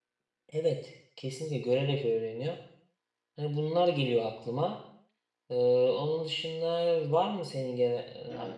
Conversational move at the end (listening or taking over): taking over